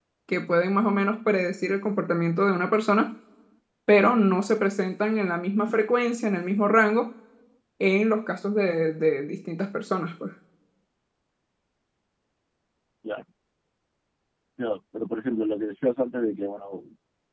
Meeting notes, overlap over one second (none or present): none